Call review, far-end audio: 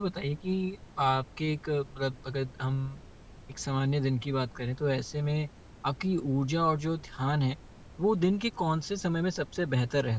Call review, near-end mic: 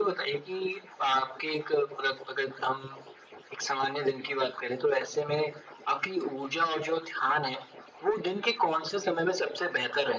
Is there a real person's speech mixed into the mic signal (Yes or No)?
No